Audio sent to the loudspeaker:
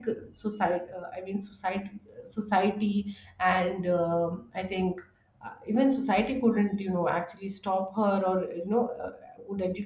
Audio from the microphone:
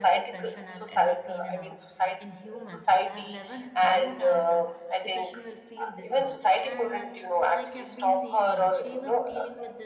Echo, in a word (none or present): present